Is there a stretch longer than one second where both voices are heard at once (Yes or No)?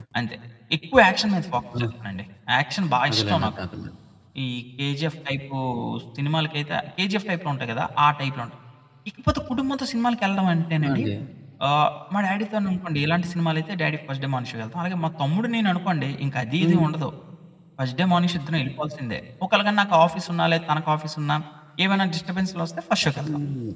No